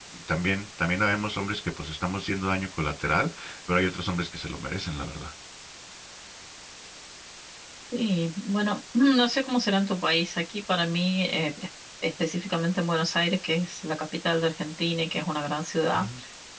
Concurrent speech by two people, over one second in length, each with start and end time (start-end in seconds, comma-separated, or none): none